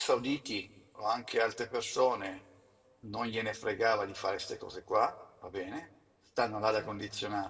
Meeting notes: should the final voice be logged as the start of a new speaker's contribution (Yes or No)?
No